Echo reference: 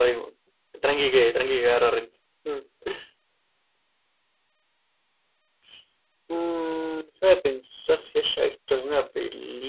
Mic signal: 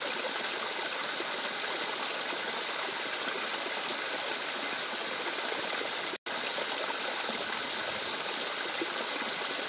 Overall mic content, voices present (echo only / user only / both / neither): neither